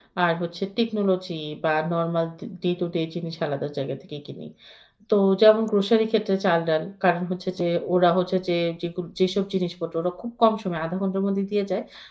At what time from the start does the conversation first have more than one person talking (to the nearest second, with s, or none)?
none